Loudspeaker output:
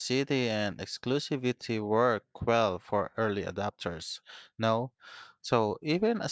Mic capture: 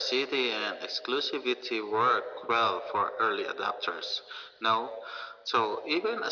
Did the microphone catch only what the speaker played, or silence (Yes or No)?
Yes